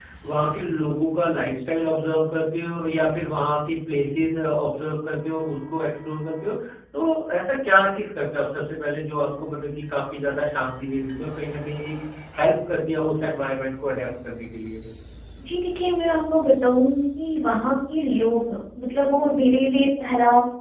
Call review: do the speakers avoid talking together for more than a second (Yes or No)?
Yes